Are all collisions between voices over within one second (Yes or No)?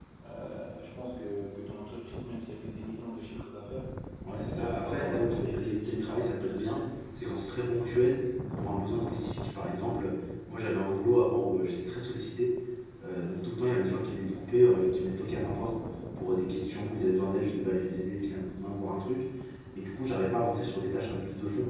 No